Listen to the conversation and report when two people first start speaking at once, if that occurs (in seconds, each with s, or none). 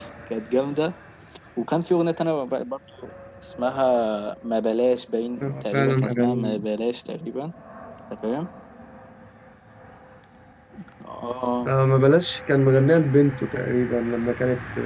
5.4 s